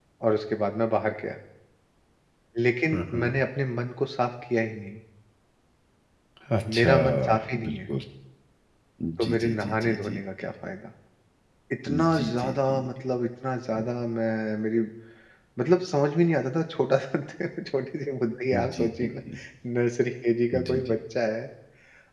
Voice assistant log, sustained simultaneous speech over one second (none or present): present